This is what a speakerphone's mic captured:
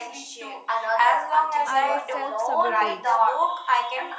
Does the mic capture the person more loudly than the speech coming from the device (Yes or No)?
No